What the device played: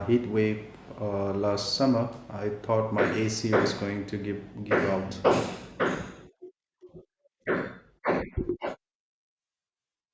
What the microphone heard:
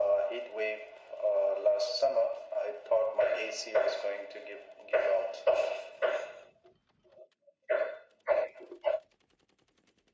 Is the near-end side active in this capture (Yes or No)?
No